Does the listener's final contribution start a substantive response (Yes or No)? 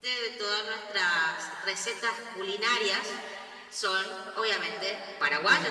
Yes